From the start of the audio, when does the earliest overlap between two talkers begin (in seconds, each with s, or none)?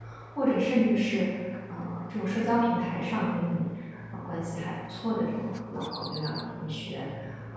none